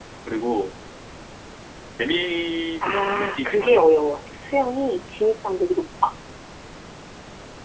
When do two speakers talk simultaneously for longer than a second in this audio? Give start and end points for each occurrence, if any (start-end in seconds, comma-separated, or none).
2.8-4.1